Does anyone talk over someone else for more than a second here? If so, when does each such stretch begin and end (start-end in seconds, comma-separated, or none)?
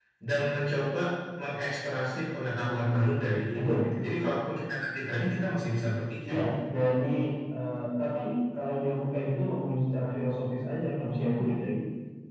none